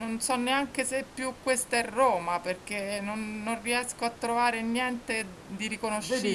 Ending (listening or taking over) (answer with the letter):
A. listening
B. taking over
B